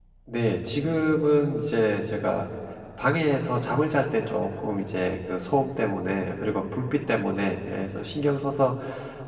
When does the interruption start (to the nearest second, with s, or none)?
none